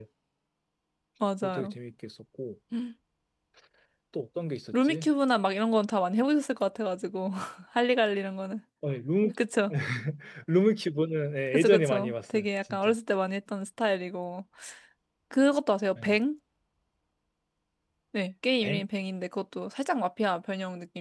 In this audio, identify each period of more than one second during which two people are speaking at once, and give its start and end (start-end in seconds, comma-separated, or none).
11.5-12.9